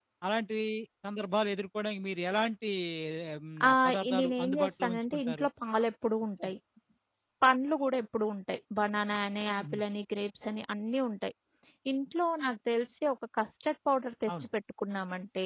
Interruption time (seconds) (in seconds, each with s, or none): 3.7 s